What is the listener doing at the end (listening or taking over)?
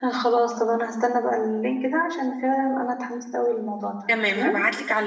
taking over